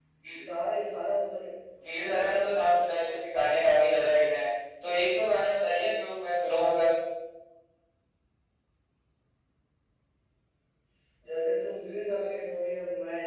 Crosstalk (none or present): present